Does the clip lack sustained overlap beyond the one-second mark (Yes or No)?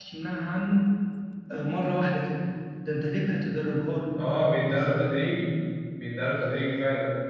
Yes